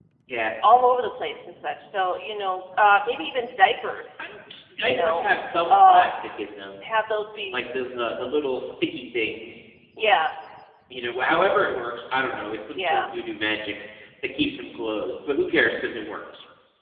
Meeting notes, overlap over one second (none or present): none